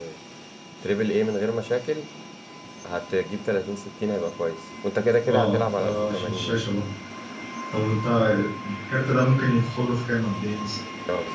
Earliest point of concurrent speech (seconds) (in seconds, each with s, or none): 5.2 s